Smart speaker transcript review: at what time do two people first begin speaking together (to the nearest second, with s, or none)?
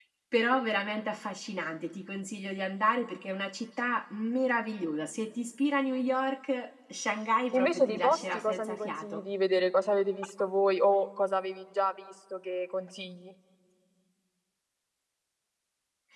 8 s